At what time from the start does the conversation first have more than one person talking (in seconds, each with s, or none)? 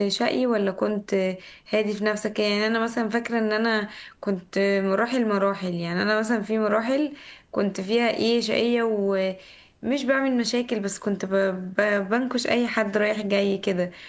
none